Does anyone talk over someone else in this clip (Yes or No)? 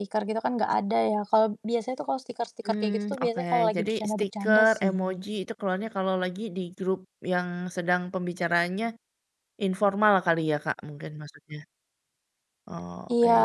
Yes